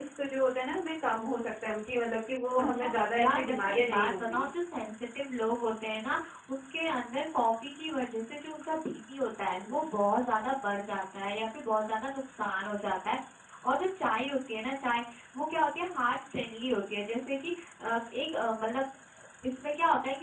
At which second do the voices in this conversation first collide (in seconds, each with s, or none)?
2.6 s